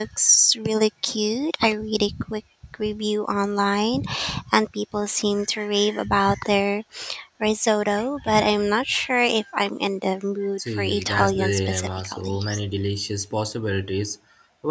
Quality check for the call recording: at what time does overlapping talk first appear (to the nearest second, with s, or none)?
11 s